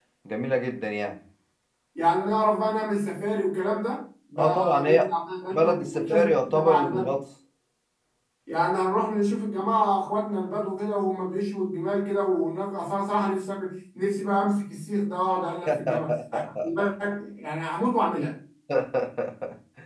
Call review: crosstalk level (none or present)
present